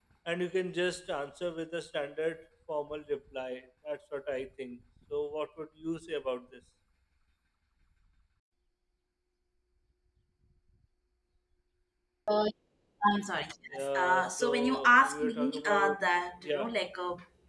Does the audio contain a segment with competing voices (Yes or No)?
Yes